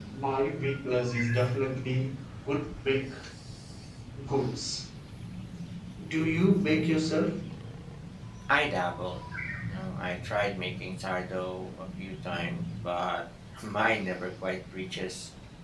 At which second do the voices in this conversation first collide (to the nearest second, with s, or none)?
none